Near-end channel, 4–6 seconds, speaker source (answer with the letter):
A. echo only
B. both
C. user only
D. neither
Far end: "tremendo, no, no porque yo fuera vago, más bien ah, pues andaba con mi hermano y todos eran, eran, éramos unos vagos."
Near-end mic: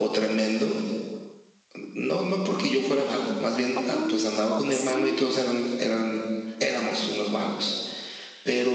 B